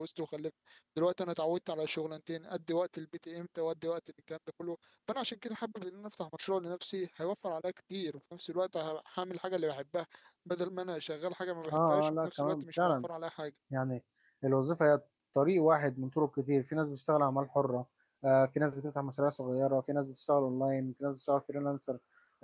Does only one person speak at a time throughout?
No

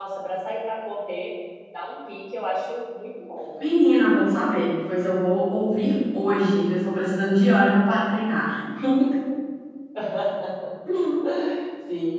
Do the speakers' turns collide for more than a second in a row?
No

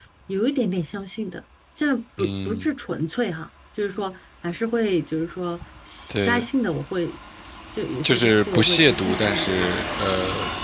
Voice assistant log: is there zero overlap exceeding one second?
No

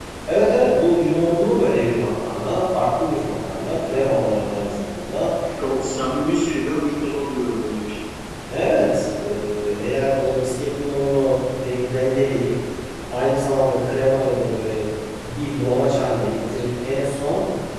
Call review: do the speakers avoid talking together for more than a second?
Yes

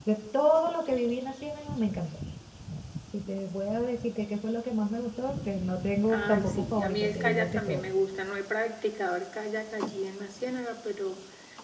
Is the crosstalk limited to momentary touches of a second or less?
No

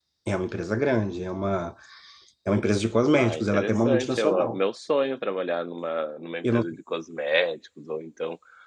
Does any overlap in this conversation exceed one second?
Yes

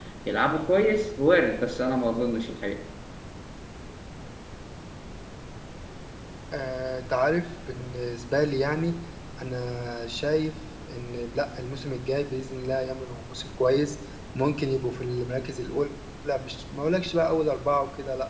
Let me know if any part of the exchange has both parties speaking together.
No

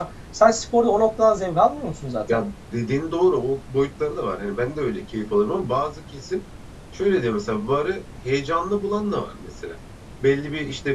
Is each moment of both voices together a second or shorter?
Yes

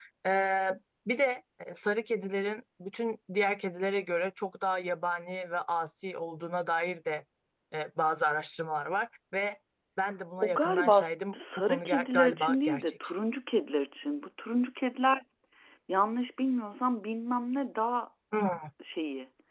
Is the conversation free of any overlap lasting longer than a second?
No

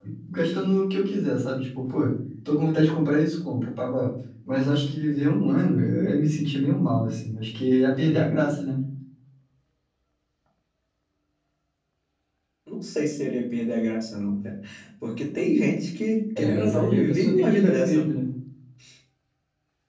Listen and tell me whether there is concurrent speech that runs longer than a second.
Yes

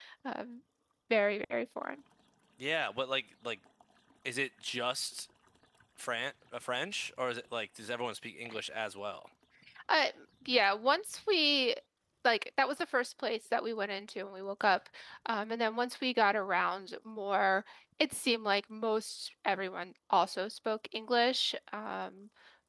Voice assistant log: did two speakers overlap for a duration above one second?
No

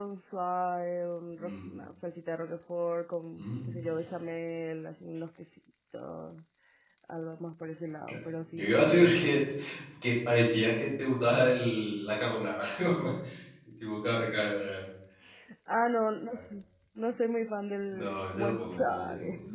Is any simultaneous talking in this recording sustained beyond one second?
Yes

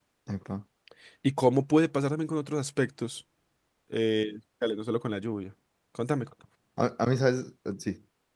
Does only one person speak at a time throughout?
Yes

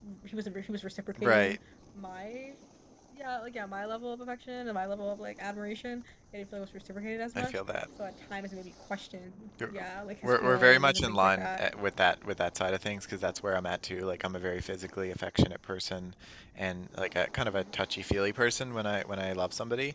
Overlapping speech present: Yes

